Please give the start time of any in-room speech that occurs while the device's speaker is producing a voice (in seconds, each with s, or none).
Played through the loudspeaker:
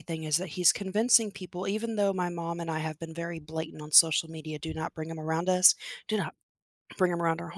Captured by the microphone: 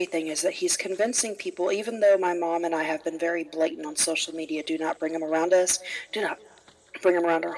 none